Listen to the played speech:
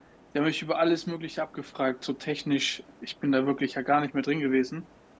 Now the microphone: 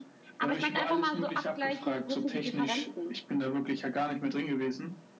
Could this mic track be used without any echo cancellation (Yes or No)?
No